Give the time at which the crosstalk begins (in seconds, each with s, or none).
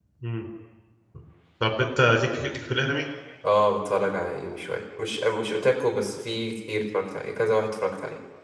none